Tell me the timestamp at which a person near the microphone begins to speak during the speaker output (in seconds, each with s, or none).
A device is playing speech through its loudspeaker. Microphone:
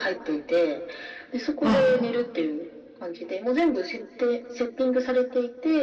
1.6 s